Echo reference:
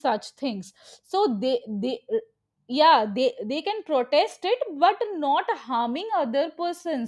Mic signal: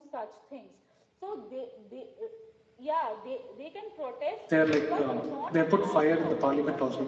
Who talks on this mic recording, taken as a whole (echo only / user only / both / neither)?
both